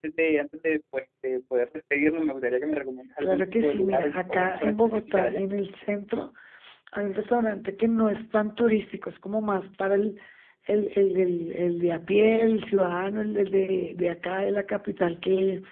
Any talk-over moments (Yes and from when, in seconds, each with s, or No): Yes, from 3.2 s